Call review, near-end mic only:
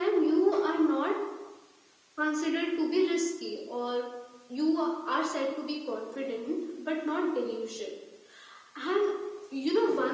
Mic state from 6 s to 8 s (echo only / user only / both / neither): echo only